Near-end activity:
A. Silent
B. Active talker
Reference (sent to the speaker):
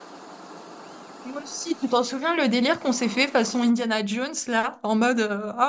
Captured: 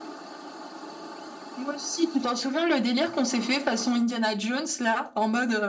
A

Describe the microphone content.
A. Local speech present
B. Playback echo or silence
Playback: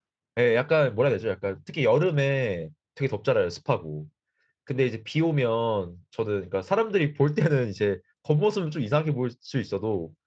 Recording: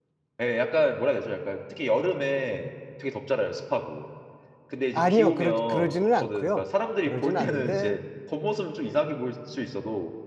A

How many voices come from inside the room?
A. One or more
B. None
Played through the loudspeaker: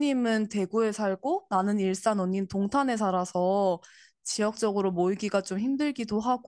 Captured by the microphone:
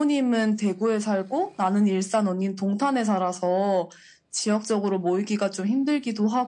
B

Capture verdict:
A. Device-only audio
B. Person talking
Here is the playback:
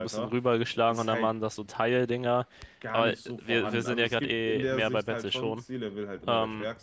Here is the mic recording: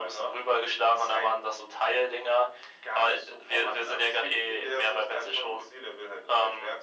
A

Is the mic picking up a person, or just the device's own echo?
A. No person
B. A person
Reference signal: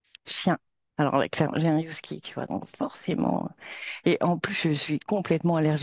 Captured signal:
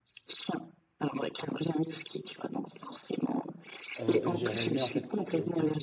B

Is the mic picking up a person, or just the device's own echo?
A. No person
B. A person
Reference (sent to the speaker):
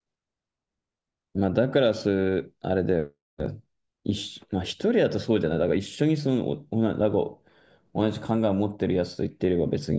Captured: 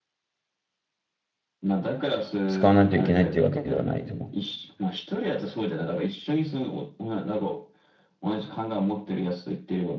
B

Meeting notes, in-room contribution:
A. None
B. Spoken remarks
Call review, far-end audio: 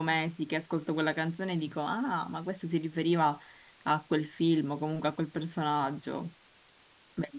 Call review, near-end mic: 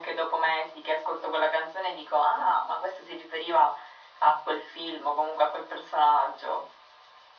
A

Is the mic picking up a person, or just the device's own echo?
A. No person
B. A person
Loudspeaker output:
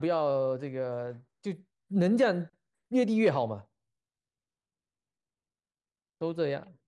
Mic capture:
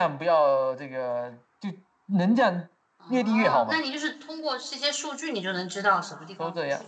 B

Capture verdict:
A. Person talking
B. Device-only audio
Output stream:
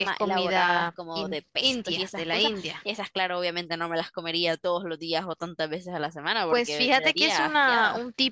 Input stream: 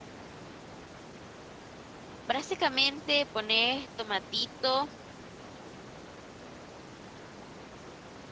A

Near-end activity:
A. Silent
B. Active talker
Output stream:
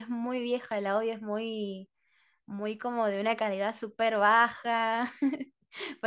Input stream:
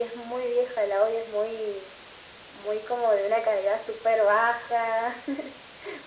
A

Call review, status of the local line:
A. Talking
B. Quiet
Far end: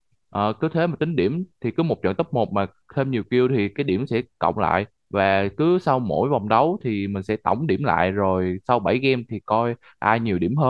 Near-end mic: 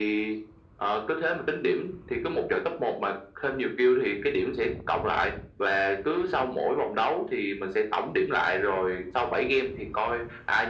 B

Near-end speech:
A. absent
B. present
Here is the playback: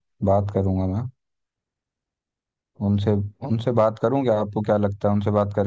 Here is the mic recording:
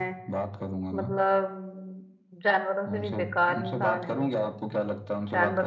B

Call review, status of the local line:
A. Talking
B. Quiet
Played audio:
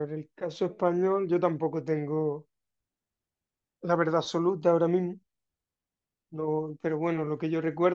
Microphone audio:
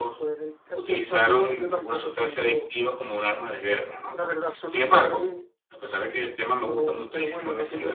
A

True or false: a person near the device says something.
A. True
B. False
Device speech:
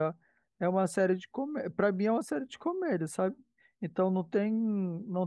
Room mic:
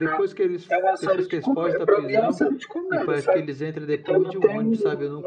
A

